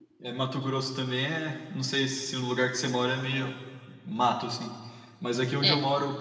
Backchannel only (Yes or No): Yes